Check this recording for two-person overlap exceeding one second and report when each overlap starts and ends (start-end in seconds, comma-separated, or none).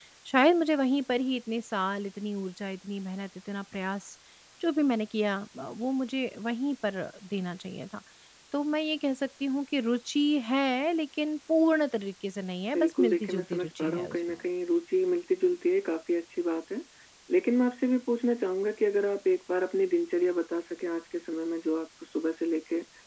12.7-14.2